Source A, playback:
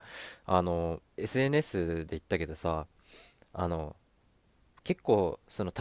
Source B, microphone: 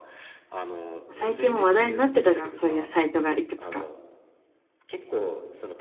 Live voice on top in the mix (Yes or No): Yes